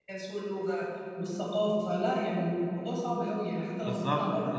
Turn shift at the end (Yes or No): Yes